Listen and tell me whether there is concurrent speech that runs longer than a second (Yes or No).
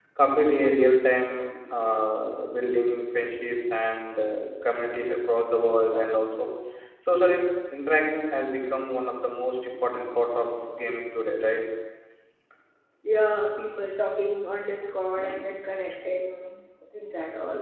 No